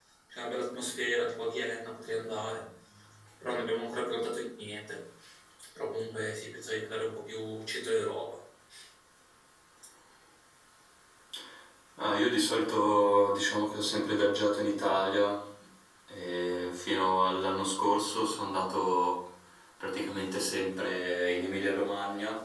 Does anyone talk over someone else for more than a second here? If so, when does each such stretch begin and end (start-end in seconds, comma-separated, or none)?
none